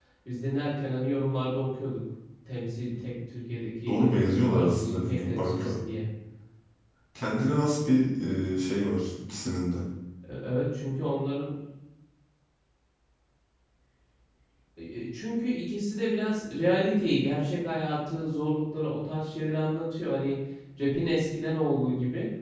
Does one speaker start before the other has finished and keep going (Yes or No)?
Yes